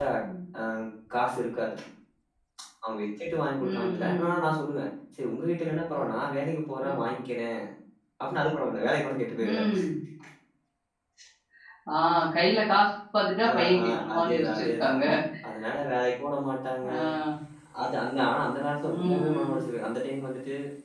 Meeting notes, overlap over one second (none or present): present